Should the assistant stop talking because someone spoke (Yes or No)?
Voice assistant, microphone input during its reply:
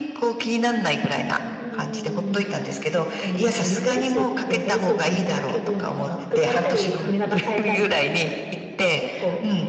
No